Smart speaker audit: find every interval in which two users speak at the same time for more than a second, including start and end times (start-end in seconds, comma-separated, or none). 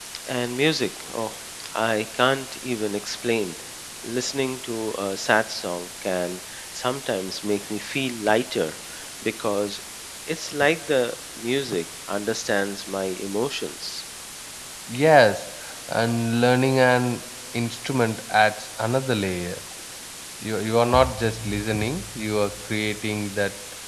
none